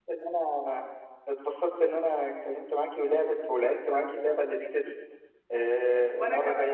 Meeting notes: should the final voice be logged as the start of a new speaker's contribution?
No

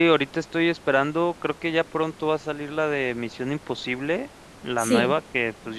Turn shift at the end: No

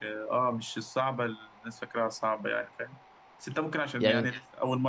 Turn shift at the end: No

